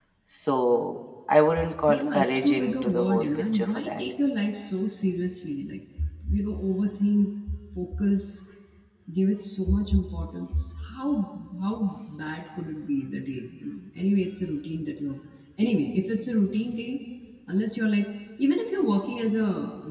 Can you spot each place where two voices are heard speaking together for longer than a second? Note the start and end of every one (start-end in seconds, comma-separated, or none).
1.9-4.0